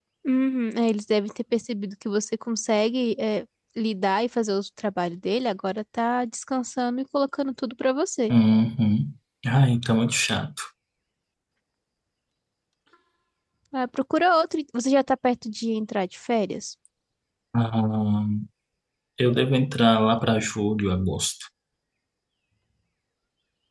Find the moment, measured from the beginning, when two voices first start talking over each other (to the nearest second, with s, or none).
none